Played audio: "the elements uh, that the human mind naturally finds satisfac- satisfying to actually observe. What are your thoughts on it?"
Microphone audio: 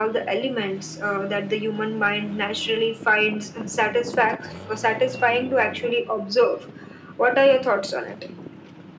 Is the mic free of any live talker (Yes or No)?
Yes